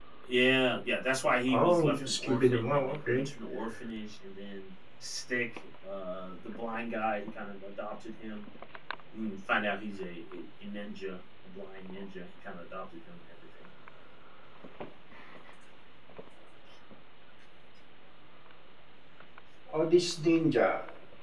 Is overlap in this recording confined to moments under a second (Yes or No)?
No